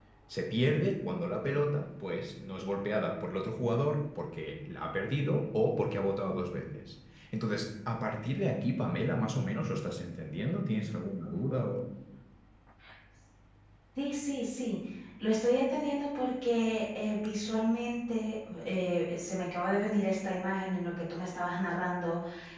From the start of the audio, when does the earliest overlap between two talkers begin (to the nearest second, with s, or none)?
none